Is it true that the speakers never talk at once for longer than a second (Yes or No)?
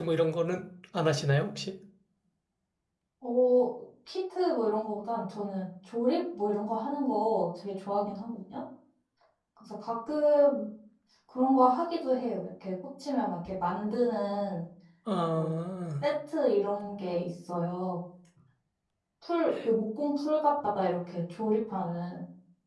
Yes